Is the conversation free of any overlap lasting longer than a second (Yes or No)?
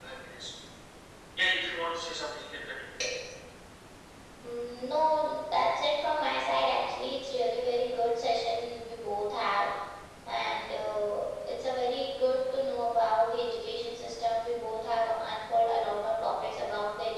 Yes